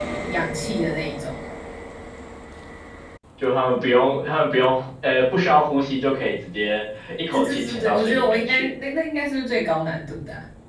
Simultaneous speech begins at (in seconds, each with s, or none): 7.3 s